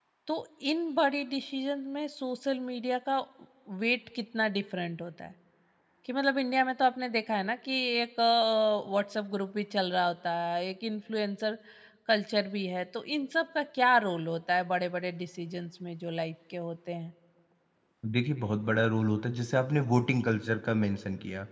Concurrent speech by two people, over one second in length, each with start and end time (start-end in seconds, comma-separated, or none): none